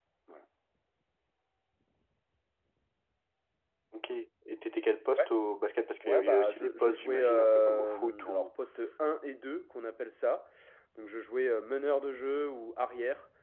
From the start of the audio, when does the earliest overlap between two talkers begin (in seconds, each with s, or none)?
6.0 s